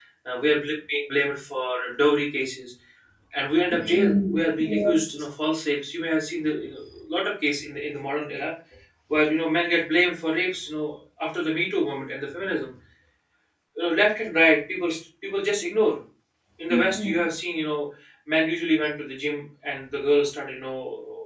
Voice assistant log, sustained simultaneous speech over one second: present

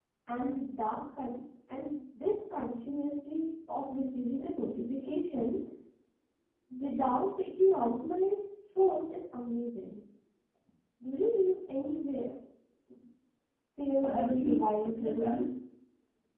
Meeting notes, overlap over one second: present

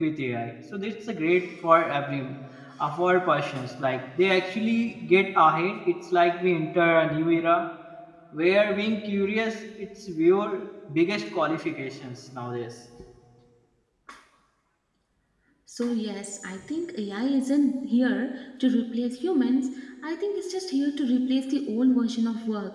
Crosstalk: none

